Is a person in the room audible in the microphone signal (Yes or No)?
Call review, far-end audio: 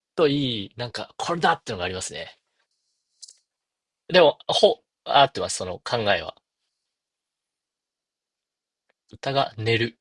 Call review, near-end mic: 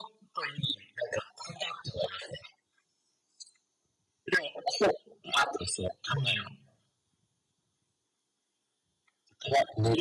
Yes